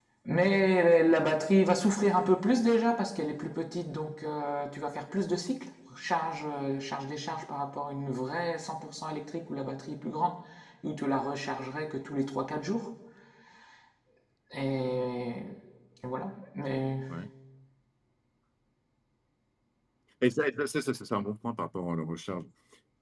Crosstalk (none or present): none